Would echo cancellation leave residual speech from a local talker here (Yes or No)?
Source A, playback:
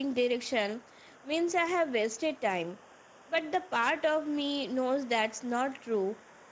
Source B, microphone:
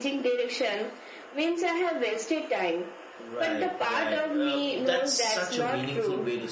Yes